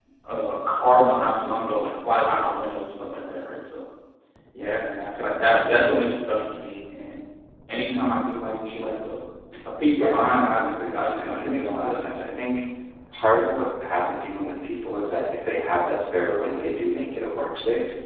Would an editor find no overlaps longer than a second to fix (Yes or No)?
No